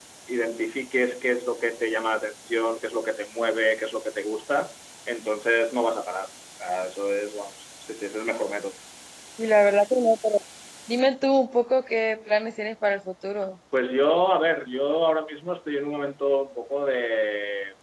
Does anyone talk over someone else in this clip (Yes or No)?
No